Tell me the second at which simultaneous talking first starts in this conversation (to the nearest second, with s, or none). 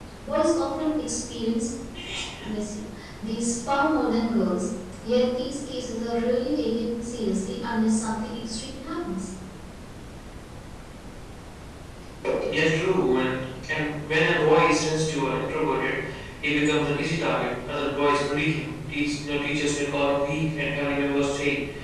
none